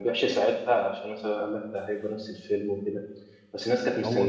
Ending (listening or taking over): listening